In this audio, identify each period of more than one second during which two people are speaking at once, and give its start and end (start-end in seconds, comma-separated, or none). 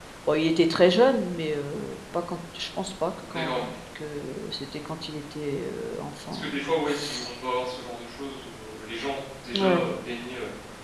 none